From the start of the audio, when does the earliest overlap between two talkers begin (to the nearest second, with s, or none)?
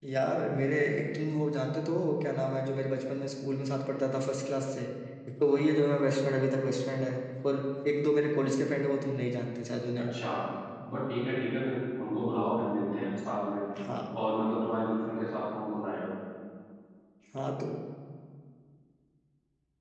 none